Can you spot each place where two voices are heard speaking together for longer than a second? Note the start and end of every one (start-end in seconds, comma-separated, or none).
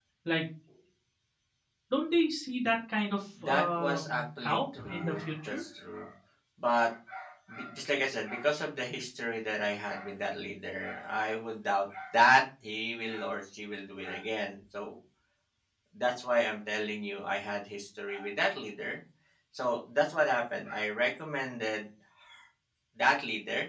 3.4-5.6